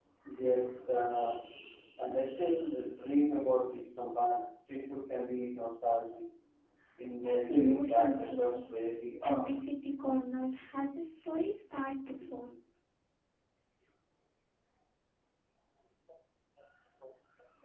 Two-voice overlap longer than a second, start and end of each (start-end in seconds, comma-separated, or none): 7.2-8.7